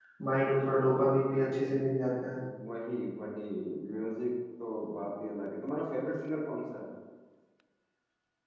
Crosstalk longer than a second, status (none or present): none